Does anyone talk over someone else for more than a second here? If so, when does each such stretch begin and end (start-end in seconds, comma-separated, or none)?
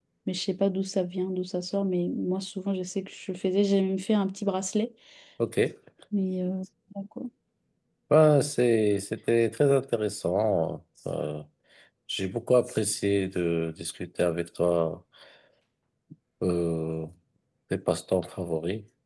none